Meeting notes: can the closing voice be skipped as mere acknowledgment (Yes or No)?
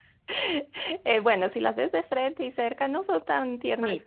No